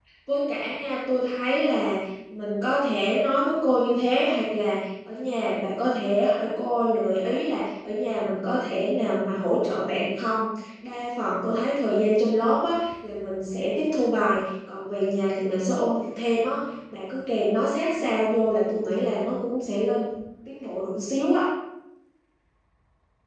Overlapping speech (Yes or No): No